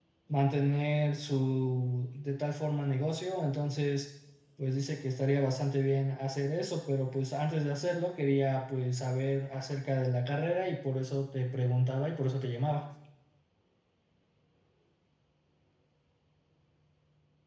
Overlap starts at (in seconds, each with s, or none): none